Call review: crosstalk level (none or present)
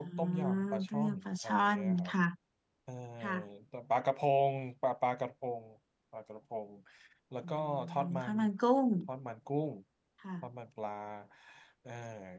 present